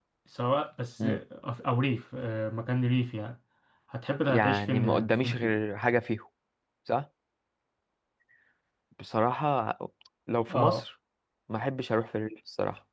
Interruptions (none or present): present